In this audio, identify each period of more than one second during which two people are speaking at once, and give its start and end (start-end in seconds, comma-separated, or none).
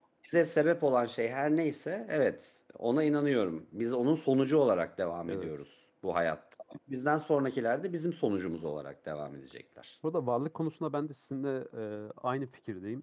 none